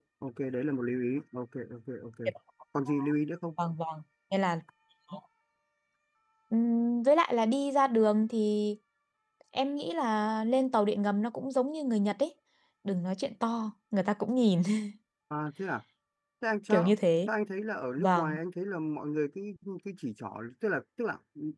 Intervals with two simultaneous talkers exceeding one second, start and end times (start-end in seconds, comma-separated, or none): none